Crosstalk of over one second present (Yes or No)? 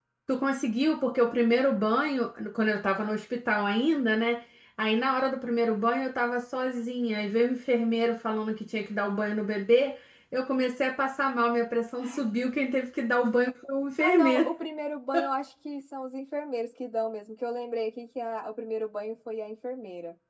No